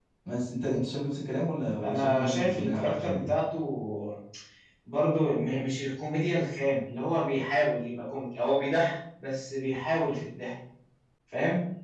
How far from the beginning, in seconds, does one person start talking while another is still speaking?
1.8 s

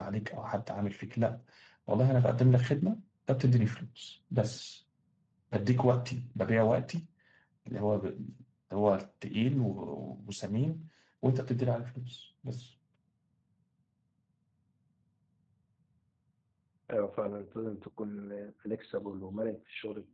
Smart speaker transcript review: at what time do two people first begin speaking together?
none

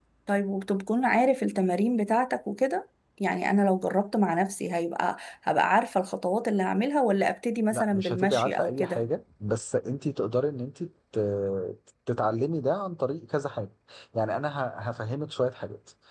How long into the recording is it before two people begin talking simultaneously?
7.7 s

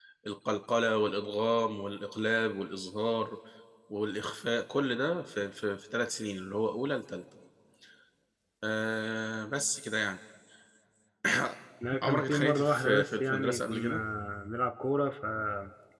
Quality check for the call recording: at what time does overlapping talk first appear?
12.0 s

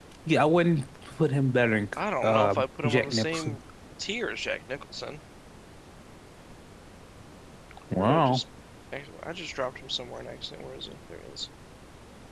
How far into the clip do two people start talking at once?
2.2 s

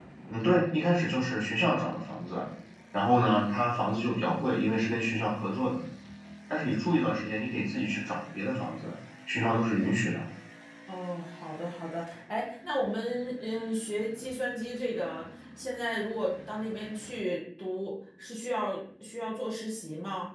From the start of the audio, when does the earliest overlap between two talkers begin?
none

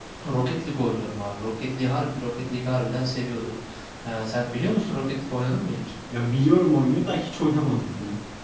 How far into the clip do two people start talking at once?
none

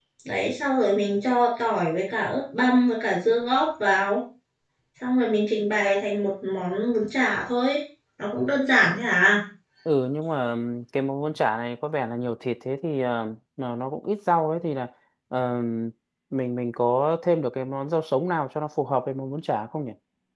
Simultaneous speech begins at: none

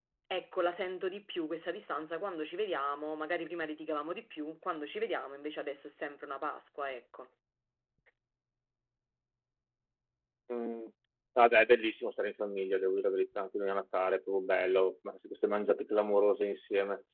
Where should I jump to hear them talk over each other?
none

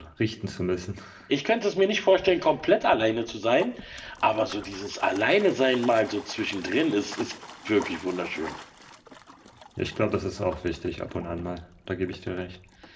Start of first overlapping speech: none

